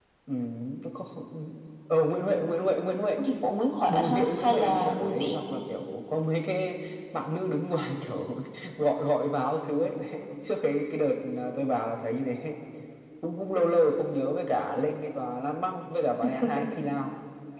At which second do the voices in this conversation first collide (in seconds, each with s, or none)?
3.9 s